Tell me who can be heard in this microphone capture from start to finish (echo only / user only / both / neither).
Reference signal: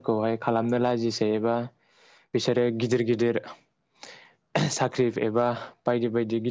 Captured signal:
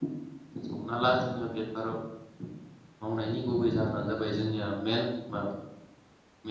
user only